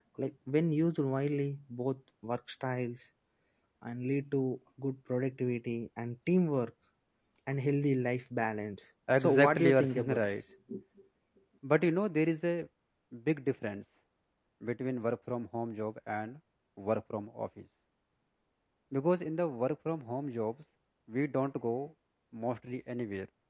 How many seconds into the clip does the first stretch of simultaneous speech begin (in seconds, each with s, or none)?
9.1 s